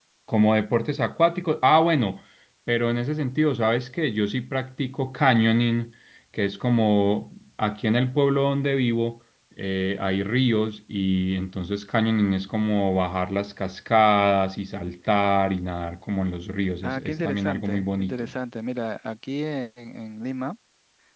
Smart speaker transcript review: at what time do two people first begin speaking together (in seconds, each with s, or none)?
16.8 s